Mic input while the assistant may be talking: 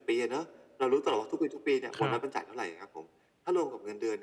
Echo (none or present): present